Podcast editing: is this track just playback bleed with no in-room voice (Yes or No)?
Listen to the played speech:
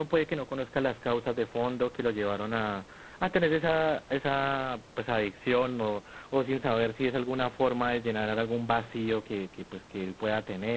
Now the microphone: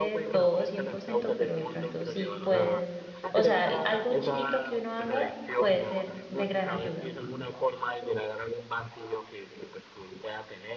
No